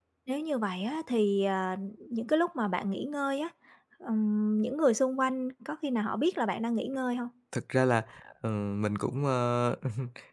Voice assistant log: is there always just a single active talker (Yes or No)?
Yes